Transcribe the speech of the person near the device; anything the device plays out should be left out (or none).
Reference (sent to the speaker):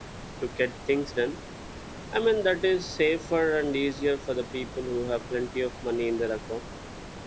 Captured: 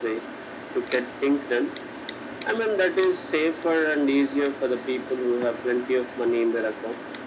none